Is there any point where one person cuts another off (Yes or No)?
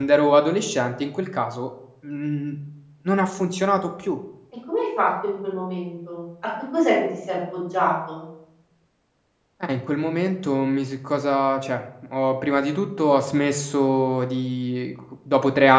No